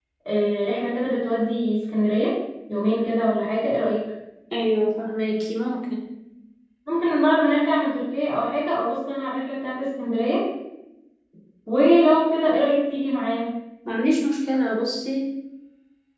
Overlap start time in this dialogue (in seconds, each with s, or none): none